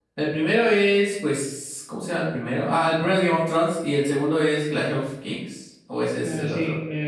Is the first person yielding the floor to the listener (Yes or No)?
Yes